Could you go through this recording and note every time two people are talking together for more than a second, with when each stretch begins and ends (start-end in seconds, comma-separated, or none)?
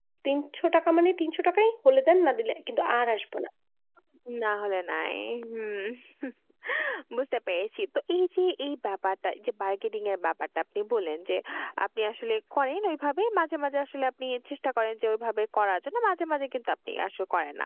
none